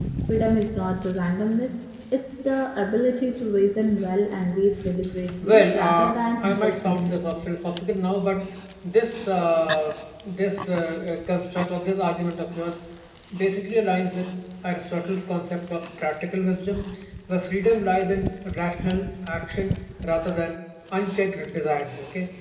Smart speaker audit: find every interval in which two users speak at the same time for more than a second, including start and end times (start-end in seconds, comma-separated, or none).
5.4-7.2